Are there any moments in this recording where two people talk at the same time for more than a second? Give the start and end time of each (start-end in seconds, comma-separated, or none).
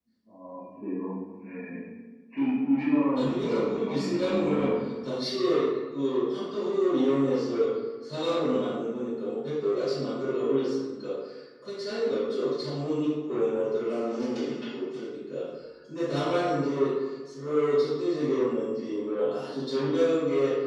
3.1-4.7